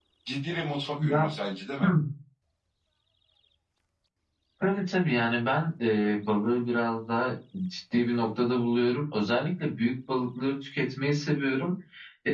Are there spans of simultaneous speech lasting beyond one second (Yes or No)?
No